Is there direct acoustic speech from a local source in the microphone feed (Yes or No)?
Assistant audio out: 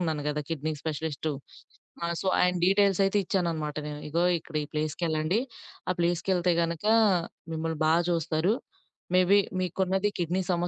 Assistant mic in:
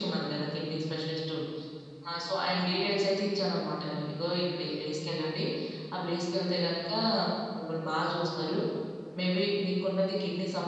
Yes